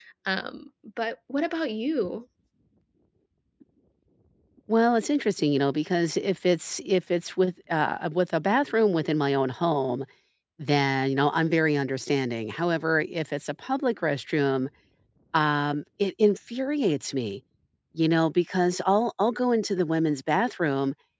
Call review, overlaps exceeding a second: none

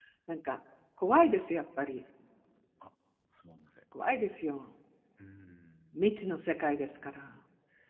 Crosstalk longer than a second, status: none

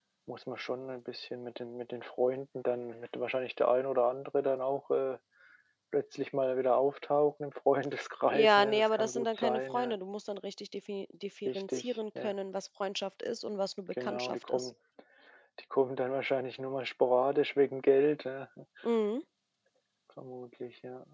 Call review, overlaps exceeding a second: present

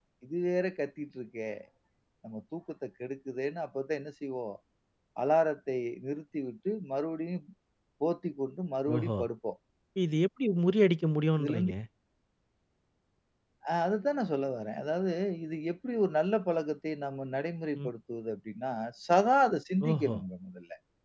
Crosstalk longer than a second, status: none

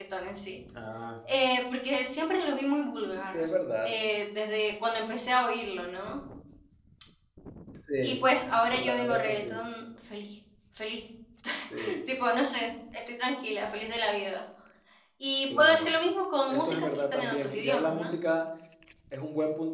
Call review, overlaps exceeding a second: present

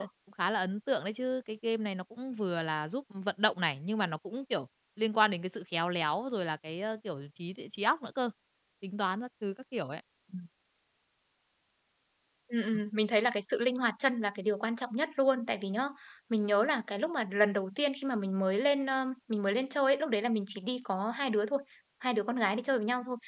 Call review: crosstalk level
none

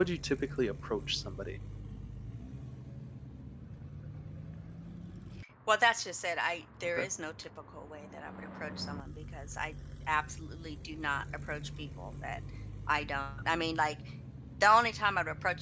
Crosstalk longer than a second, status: none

